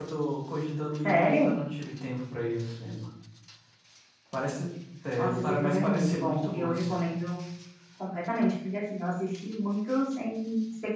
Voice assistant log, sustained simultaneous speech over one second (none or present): present